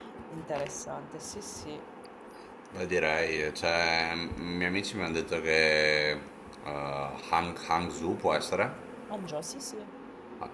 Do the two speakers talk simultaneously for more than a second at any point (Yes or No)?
No